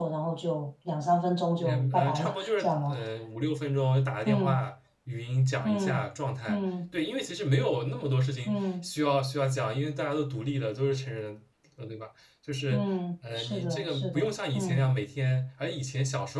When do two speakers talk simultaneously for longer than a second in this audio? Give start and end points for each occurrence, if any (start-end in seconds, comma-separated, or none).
1.6-2.9, 13.4-14.9